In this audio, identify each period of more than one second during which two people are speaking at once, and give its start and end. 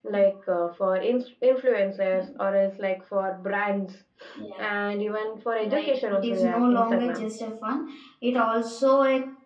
5.6-7.3

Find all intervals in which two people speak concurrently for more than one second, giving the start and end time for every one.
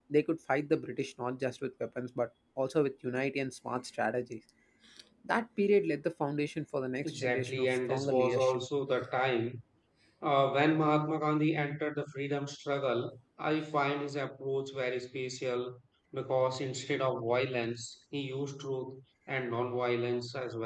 7.0-8.6

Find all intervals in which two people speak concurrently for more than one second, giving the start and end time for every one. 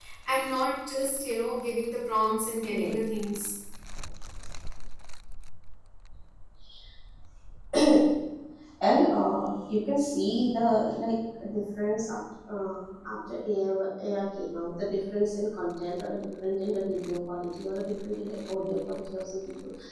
none

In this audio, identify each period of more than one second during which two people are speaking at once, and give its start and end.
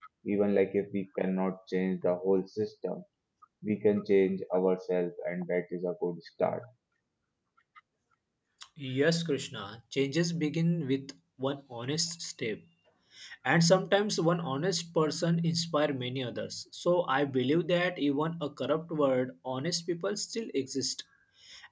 none

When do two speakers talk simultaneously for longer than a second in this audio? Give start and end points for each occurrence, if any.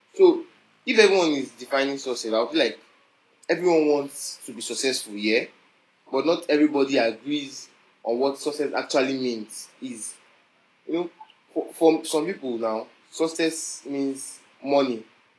none

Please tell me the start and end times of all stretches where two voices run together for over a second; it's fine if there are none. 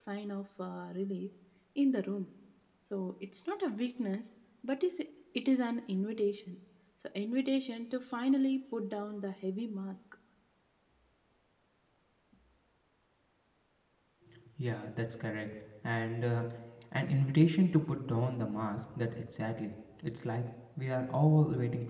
none

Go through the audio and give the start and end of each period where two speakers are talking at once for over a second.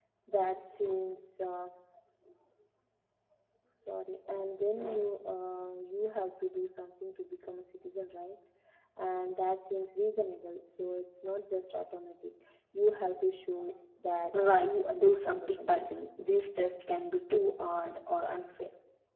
14.3-15.8

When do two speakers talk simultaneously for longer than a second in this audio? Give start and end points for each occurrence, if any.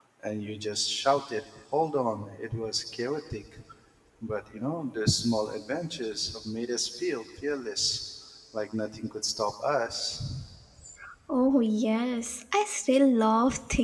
none

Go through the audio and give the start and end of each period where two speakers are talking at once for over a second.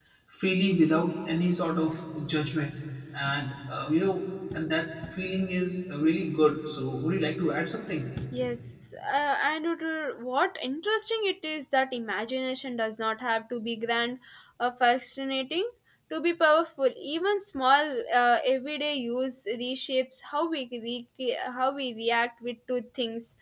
none

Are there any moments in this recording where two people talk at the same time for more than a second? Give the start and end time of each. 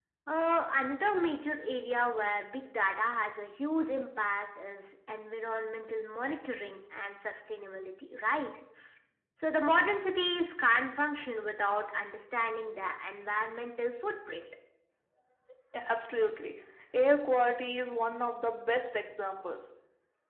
none

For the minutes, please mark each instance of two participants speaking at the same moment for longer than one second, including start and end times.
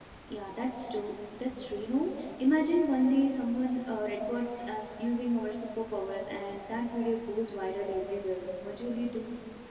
none

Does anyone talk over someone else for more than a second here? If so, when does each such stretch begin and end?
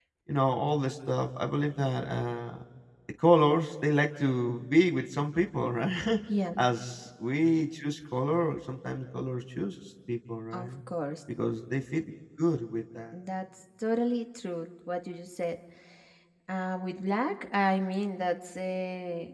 none

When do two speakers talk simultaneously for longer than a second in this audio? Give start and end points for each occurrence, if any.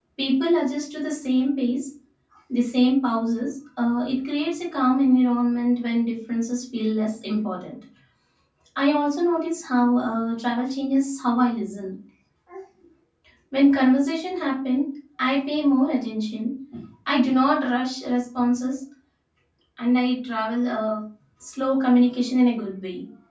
none

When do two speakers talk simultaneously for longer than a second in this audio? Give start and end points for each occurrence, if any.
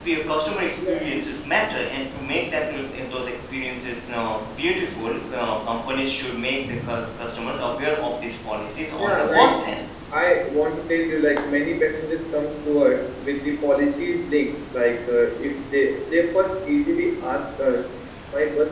none

